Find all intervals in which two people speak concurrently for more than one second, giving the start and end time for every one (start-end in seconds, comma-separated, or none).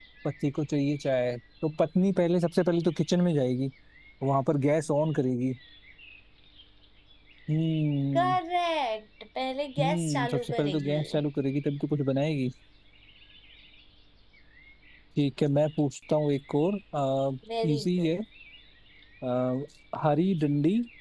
9.8-11.0